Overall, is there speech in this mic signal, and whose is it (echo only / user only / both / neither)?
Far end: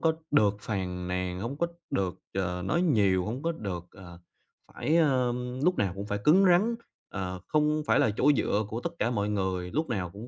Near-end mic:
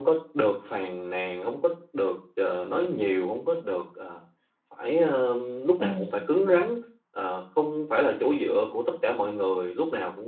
both